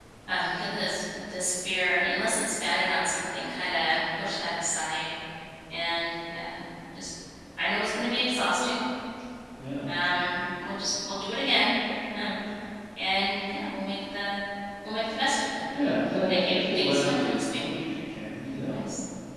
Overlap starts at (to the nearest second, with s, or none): 16 s